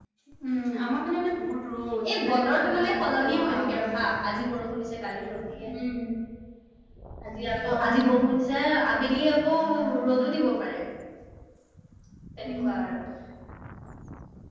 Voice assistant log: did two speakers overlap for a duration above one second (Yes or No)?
Yes